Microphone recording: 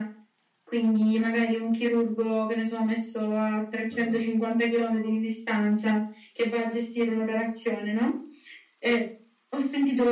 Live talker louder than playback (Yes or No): No